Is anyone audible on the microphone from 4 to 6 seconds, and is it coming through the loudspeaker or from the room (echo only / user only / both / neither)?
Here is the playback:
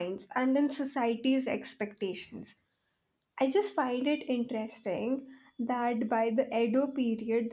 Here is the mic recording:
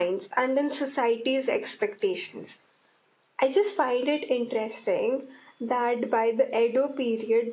echo only